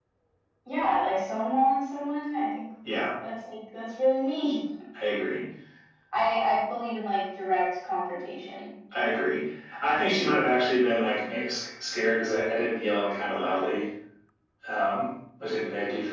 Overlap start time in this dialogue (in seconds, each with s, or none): none